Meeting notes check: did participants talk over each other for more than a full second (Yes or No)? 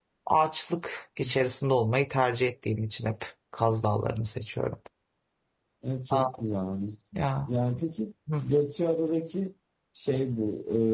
No